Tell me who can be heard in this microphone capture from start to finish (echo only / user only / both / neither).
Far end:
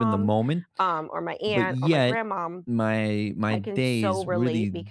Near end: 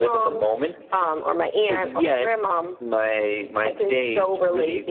echo only